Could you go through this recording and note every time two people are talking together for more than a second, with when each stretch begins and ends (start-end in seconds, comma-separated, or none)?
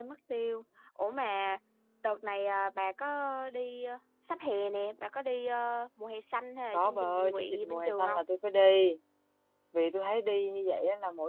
6.7-8.0